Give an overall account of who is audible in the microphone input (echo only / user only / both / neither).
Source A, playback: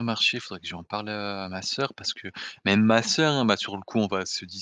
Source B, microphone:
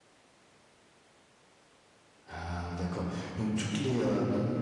user only